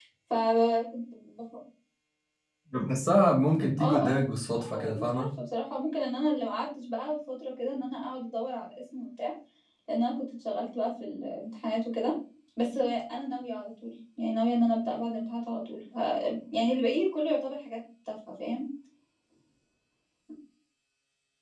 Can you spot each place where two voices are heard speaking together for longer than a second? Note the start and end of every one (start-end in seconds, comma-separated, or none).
3.8-5.3